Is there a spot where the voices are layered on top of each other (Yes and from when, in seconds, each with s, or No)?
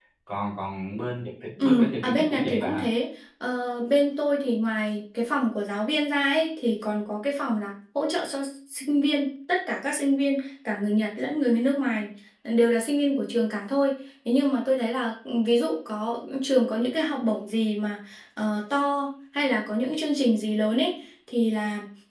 Yes, from 1.6 s